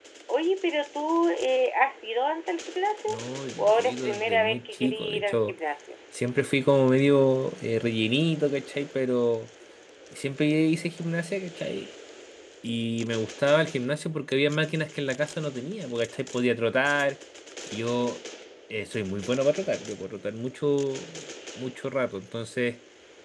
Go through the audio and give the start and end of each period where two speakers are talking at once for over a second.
3.6-5.5

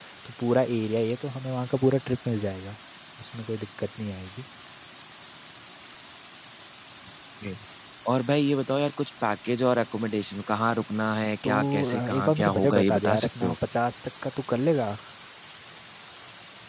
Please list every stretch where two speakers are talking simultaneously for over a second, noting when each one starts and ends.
11.4-13.6

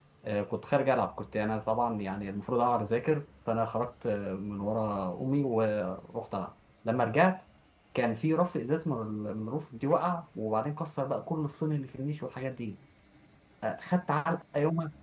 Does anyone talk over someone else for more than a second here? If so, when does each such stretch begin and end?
none

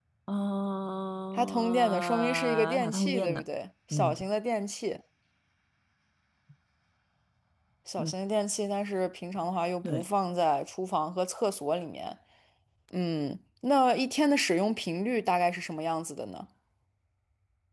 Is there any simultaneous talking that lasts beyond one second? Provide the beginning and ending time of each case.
1.4-3.4

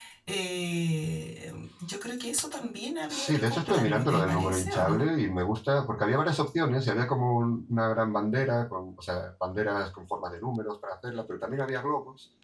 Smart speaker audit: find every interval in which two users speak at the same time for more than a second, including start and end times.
3.1-5.1

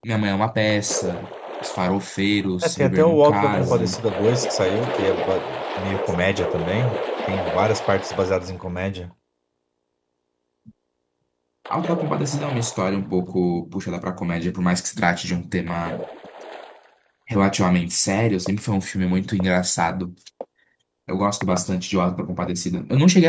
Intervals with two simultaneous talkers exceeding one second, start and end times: 2.6-4.0

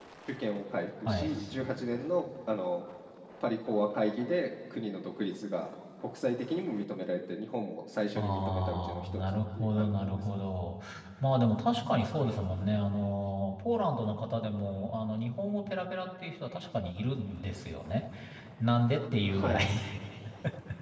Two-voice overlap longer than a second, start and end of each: 8.2-10.4

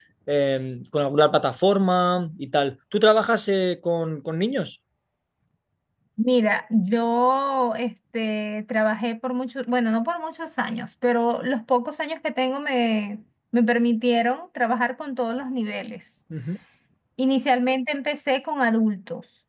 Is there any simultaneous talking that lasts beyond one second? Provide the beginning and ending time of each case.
none

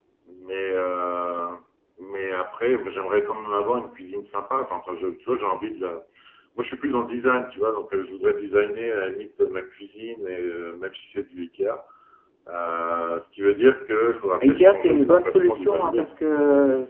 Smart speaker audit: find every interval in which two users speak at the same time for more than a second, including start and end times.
14.4-16.1

